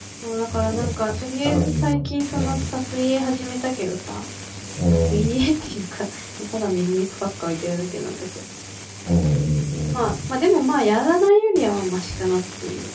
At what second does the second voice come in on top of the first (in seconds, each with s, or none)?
0.5 s